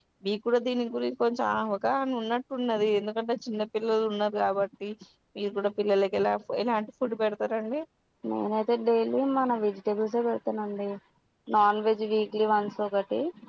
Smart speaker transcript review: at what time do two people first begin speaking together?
none

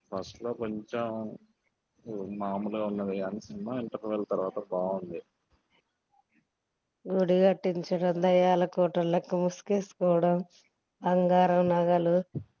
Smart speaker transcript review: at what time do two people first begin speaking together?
none

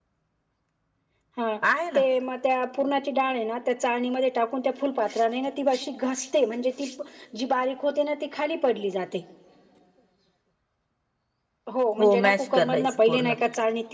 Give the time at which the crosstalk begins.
12 s

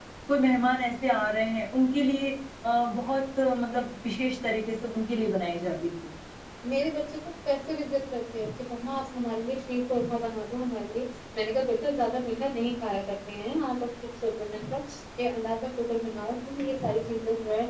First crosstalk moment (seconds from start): none

